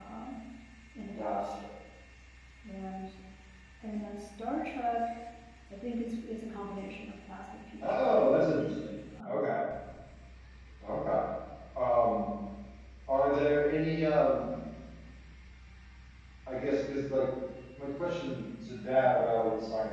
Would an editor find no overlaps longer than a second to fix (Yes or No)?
Yes